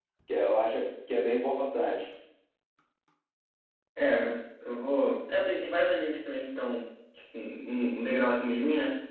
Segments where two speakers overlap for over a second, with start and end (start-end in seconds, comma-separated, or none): none